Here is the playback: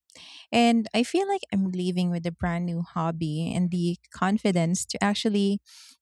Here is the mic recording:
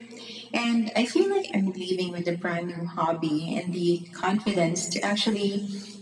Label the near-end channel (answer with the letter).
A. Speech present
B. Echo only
B